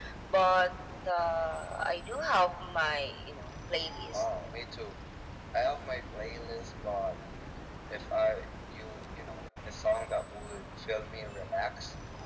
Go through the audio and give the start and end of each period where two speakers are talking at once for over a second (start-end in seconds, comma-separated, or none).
none